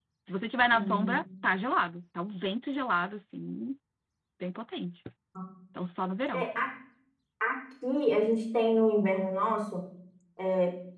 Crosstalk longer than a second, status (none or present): none